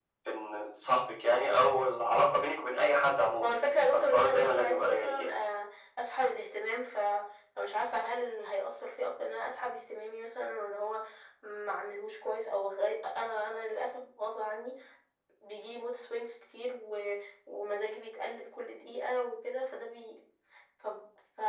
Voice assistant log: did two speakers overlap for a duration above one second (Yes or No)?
Yes